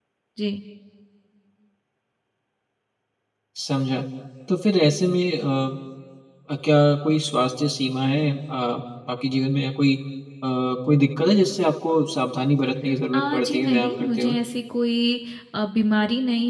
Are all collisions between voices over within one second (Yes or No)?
No